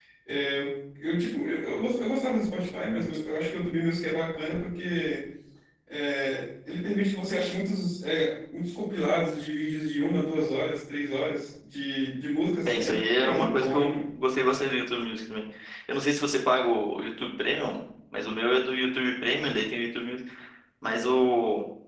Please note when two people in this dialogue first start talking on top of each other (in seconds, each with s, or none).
12.6 s